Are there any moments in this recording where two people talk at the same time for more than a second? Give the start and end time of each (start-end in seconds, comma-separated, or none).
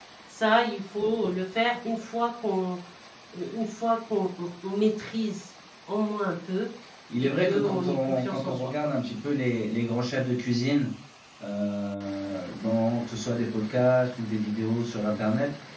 7.2-8.7